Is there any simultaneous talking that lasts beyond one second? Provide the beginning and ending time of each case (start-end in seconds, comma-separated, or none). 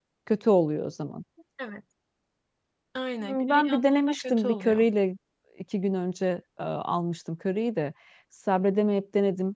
3.2-4.8